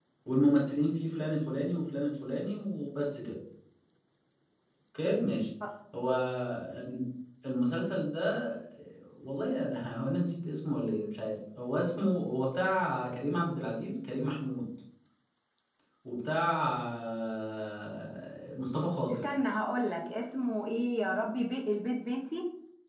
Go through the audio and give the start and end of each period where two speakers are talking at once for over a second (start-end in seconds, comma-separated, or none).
none